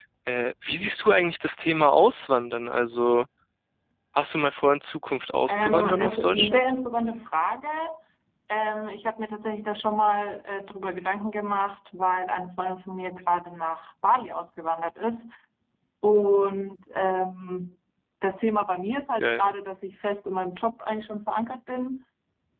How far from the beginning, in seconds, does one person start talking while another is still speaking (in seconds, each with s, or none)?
5.5 s